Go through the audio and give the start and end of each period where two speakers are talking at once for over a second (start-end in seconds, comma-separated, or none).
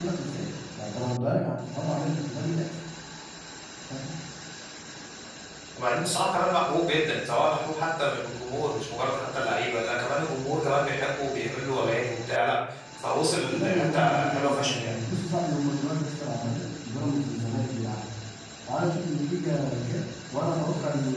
13.4-14.9